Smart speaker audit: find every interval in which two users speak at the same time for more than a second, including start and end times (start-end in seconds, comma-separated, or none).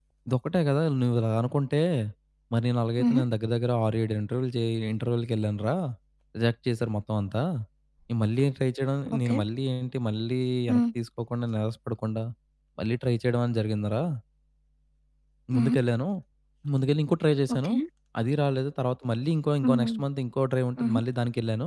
none